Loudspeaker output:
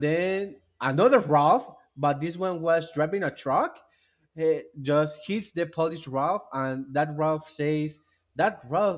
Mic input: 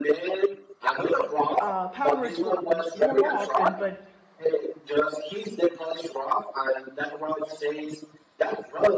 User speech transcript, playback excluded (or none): Uh, powers w- w- wore off, and but